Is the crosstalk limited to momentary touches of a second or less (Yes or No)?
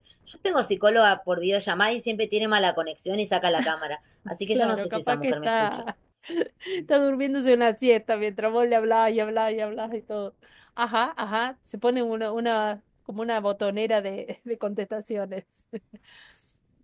No